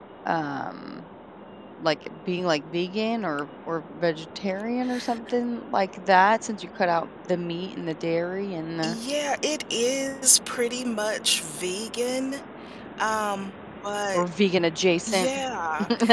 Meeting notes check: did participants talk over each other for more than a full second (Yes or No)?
No